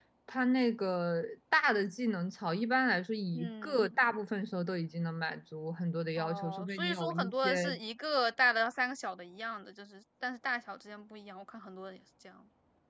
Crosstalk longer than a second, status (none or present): present